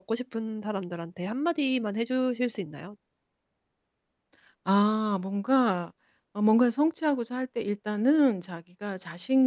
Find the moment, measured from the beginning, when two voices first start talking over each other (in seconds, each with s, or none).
none